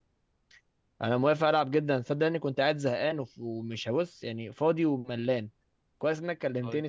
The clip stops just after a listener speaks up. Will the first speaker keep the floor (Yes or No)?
Yes